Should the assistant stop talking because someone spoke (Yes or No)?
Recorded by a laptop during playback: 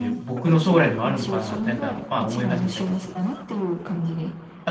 Yes